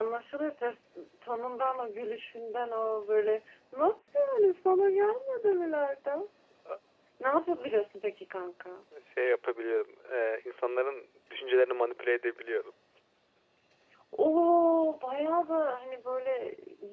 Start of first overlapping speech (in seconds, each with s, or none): none